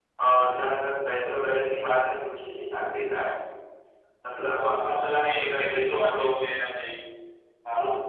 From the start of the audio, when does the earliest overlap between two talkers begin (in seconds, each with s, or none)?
4.6 s